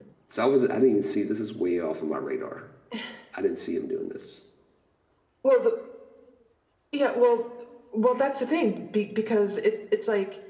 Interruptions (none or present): none